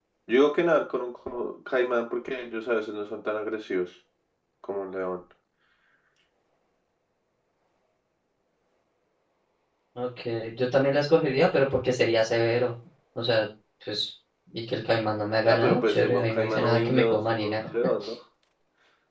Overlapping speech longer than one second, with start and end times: 15.4-17.7

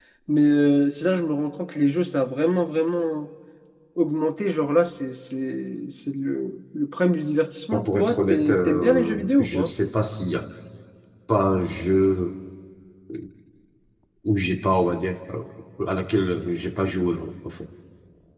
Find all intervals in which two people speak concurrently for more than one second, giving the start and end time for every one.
7.7-9.7

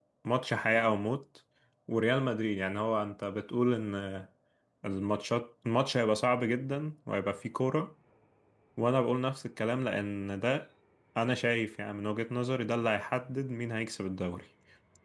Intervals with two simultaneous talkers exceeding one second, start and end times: none

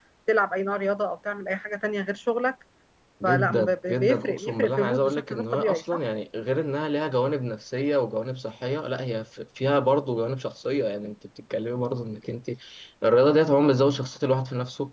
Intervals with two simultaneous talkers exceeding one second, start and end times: 3.2-6.0

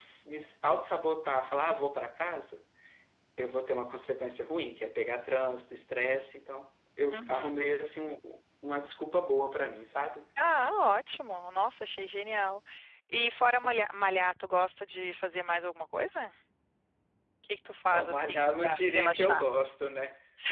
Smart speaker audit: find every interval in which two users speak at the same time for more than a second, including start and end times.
17.9-19.4

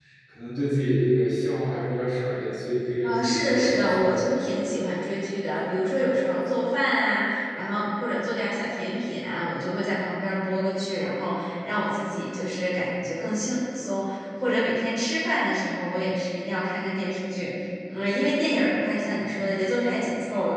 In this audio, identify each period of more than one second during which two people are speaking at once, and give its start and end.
3.0-4.3

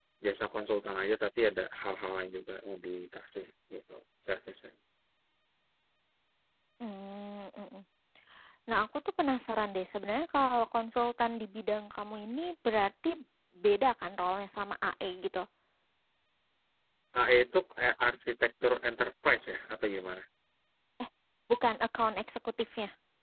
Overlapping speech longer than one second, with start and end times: none

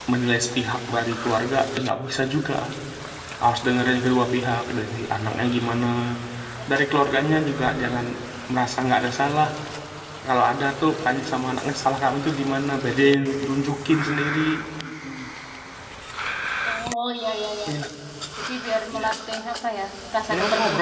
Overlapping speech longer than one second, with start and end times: none

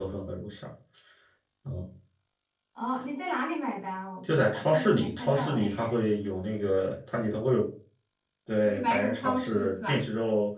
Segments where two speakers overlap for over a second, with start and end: 4.2-5.7, 8.6-10.0

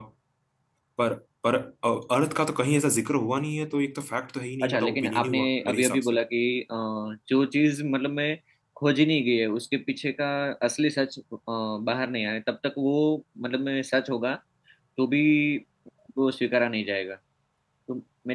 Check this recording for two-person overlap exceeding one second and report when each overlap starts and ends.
4.6-6.2

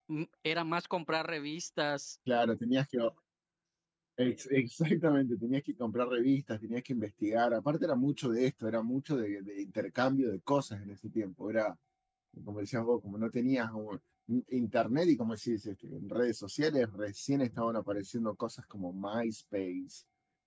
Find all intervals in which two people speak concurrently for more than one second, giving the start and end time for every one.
none

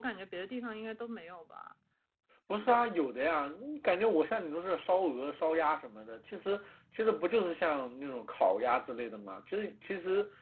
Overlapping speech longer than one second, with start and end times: none

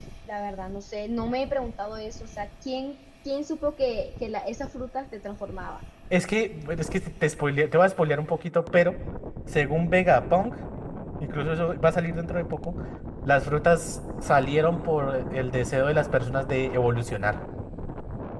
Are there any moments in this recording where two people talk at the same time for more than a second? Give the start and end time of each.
none

